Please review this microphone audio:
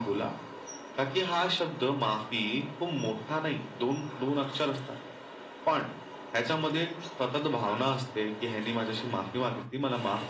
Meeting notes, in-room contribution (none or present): none